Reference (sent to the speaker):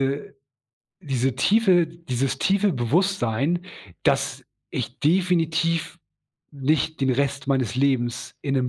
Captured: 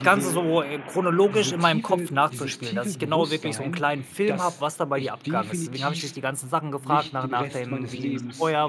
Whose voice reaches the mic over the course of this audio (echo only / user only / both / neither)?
both